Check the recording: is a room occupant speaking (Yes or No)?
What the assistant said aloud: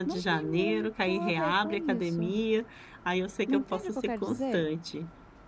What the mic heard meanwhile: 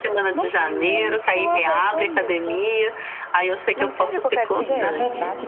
Yes